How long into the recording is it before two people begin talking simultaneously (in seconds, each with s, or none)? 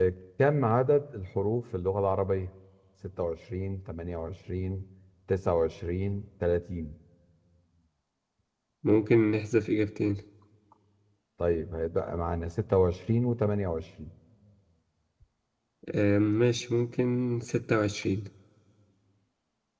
none